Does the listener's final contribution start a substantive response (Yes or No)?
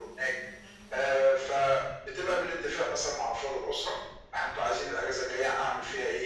No